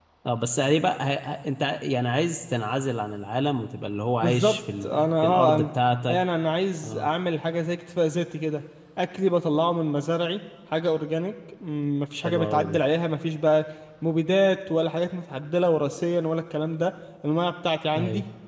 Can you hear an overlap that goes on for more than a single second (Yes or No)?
Yes